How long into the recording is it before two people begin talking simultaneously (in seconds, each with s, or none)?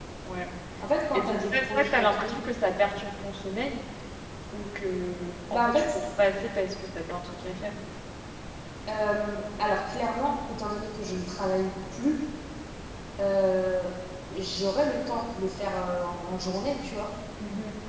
1.1 s